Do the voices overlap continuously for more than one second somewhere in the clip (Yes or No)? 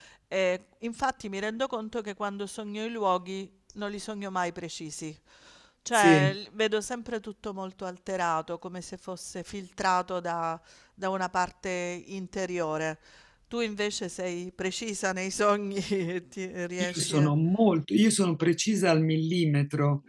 No